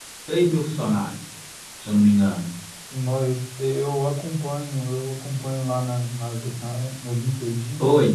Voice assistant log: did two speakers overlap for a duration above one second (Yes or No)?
No